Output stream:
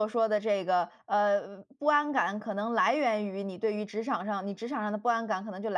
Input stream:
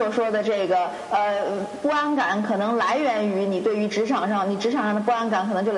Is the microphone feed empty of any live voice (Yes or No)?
Yes